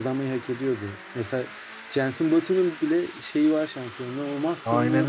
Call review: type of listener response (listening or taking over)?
taking over